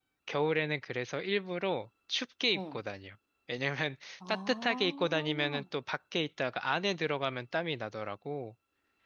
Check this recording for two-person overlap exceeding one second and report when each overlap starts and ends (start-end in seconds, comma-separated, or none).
4.3-5.6